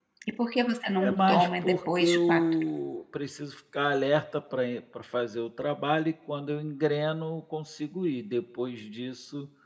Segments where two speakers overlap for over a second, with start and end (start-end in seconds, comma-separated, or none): 1.0-2.4